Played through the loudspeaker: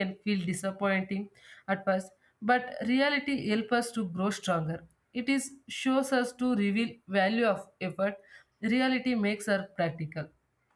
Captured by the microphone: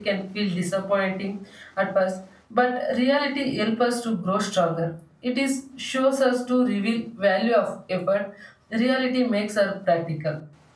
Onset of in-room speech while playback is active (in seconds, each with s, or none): none